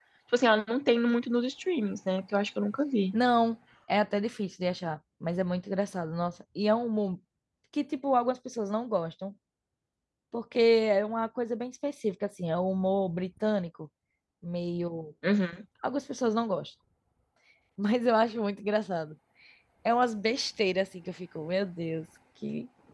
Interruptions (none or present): none